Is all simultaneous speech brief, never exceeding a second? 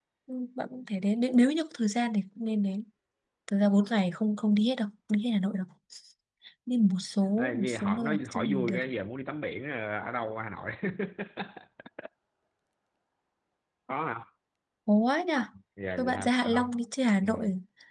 No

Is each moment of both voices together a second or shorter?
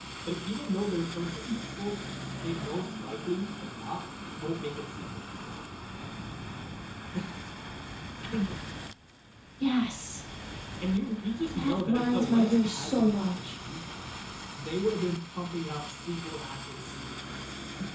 No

